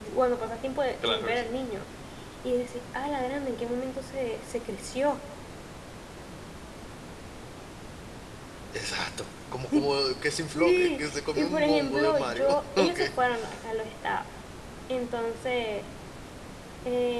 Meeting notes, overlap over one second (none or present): present